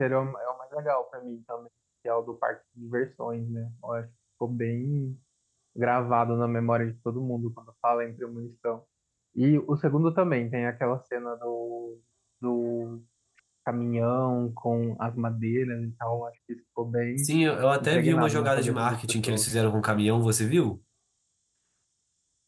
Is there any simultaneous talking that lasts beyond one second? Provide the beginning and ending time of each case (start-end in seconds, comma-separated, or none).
17.8-19.5